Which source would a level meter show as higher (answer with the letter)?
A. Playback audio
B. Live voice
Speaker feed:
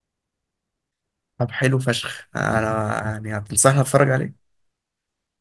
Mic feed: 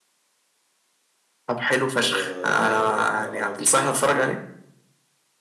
A